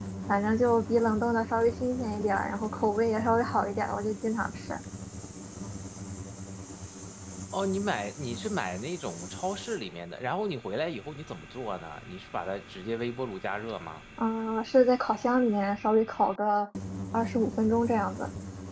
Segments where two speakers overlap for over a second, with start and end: none

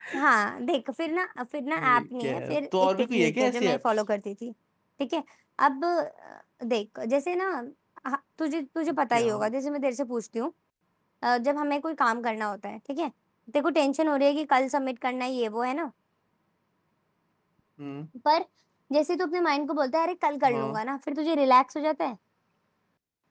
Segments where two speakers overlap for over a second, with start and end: 1.8-4.0

